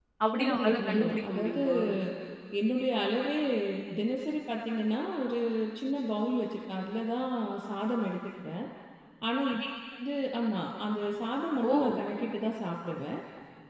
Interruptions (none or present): present